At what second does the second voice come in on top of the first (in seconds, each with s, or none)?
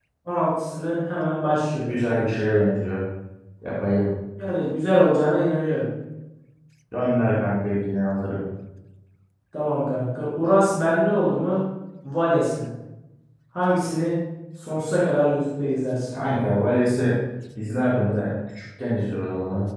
none